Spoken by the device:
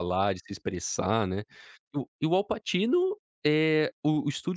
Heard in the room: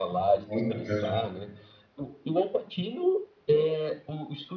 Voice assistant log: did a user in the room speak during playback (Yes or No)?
Yes